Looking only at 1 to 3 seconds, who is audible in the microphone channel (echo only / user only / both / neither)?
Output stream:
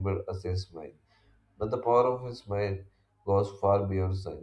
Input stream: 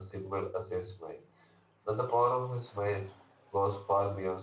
echo only